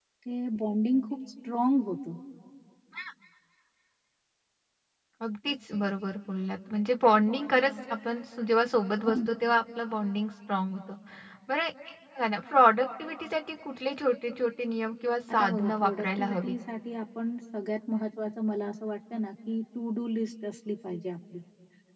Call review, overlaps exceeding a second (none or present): present